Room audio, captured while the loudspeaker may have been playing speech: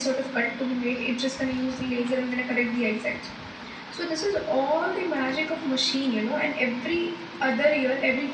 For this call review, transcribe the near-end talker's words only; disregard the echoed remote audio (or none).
none